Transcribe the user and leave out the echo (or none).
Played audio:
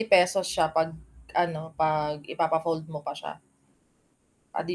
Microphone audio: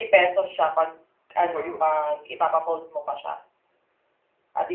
mura 'yon.